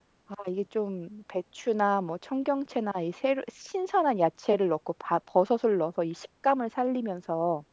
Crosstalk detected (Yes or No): No